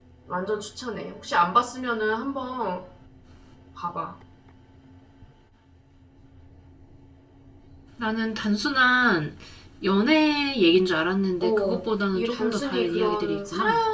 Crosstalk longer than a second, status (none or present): present